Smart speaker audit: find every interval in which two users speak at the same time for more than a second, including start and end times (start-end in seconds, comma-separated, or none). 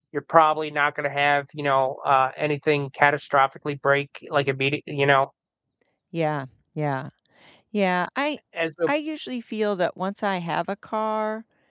none